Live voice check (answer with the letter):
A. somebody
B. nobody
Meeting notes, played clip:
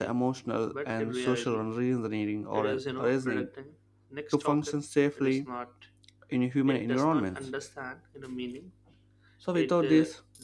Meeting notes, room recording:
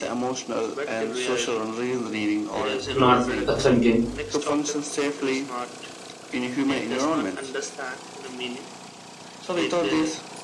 A